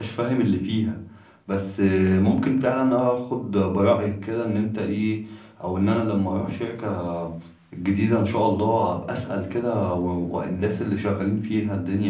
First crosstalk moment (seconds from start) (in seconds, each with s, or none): none